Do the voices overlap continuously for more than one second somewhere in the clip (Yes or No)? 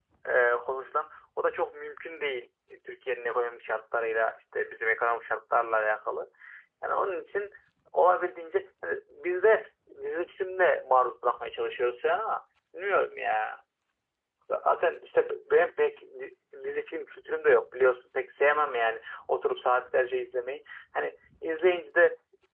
No